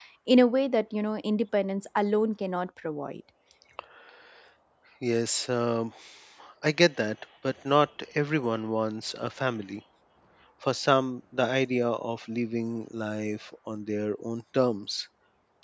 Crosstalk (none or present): none